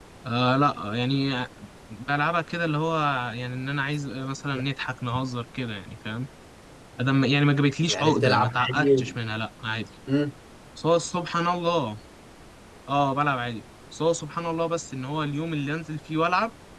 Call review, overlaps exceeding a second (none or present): present